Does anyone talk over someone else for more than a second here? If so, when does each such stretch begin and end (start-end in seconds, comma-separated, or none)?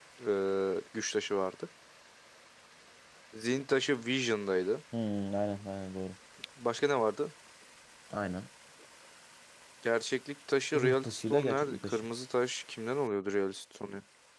10.7-12.1